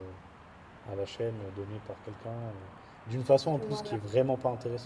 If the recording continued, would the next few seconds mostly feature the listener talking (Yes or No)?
No